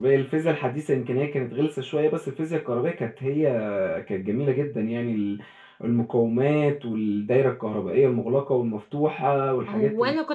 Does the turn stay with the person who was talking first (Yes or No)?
No